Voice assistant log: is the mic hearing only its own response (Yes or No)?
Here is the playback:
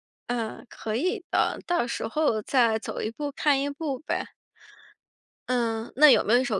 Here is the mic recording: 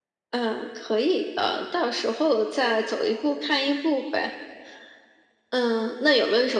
Yes